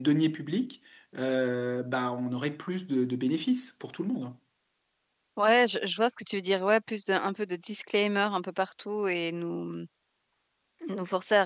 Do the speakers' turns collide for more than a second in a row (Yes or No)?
No